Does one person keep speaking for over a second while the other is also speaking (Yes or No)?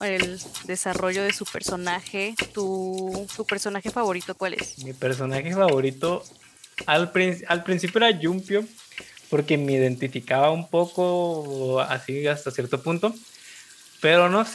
No